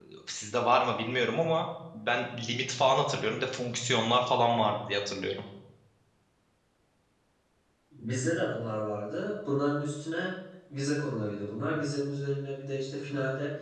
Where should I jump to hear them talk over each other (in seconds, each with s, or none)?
none